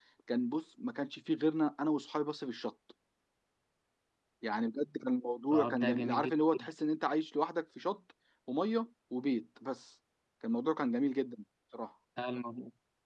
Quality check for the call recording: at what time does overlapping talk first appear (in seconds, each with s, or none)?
5.5 s